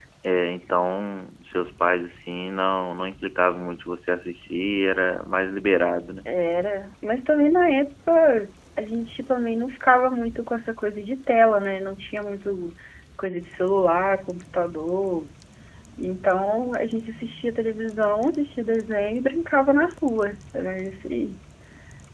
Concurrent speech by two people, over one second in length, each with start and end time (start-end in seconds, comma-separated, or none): none